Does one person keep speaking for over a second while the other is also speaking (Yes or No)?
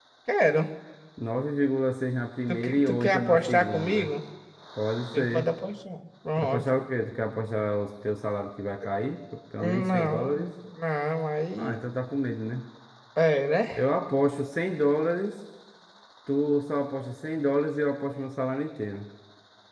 Yes